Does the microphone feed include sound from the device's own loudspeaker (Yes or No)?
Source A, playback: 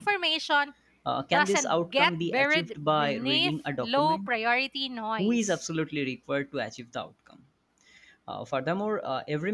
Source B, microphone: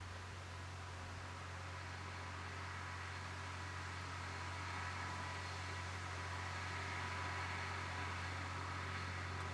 No